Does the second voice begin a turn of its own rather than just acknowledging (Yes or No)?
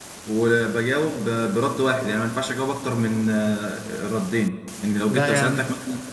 No